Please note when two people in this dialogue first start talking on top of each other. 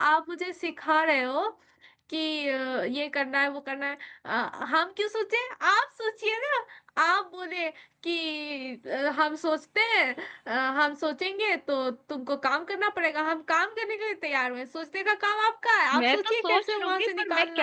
15.9 s

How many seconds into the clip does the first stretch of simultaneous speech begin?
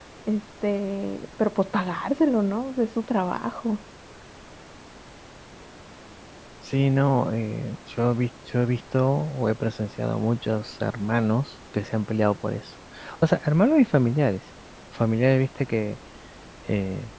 none

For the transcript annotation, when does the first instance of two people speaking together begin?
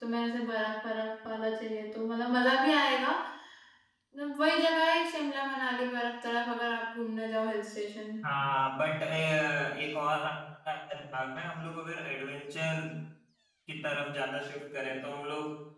none

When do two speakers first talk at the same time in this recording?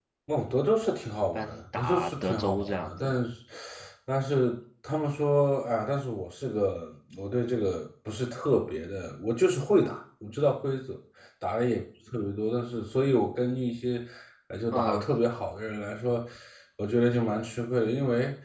1.4 s

